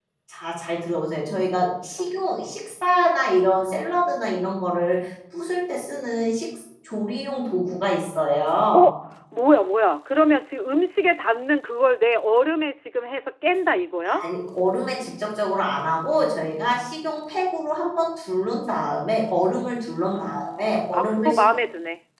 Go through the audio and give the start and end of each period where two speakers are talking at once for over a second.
20.2-21.4

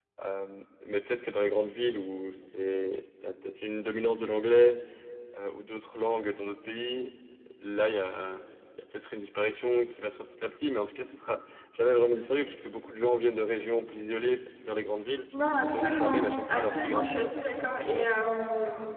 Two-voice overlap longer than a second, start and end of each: 15.6-17.3

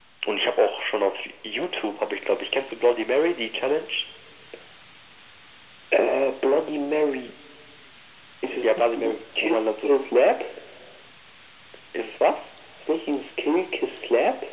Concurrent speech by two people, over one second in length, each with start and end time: 8.5-9.9

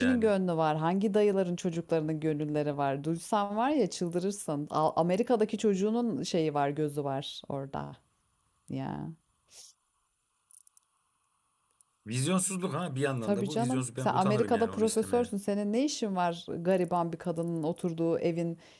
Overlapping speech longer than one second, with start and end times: 13.2-15.3

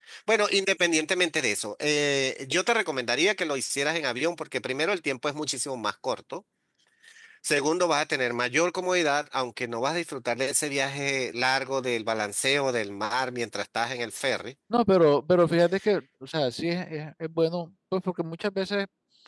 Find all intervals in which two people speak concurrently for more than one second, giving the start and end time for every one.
none

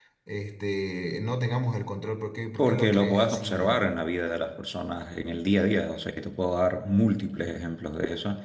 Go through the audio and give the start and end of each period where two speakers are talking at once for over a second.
2.6-3.9

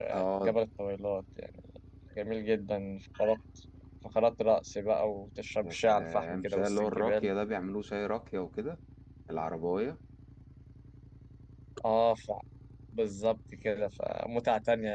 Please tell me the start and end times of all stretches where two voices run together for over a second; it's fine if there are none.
5.6-7.3

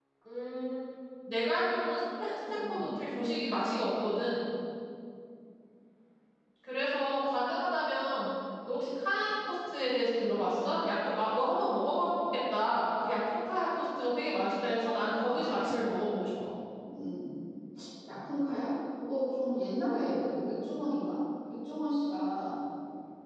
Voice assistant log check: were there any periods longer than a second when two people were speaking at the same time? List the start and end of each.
none

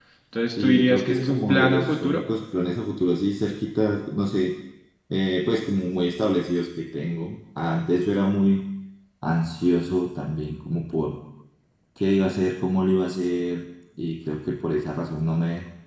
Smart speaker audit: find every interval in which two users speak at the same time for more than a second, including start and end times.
0.6-2.2

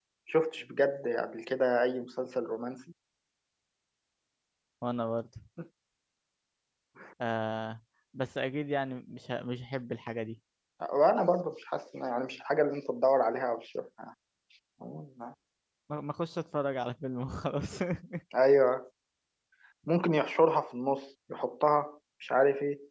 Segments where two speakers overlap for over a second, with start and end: none

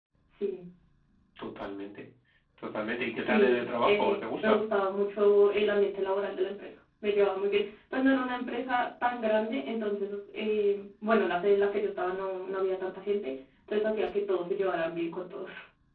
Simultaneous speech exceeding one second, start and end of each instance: 3.2-4.6

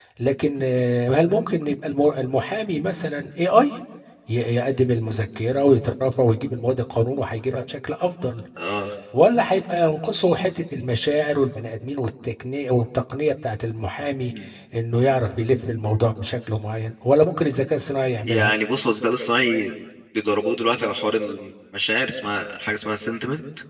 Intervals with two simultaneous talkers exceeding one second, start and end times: none

